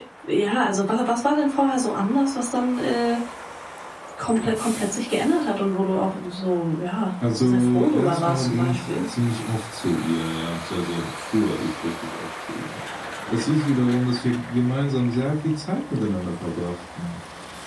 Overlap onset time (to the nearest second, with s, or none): 7 s